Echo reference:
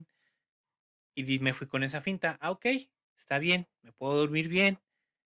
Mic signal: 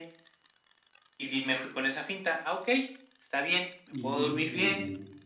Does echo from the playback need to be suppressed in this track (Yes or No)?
Yes